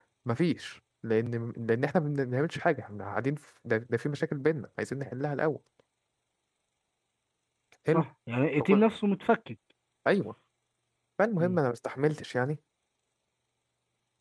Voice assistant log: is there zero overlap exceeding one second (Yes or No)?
Yes